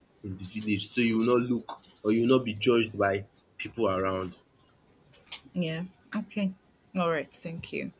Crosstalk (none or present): none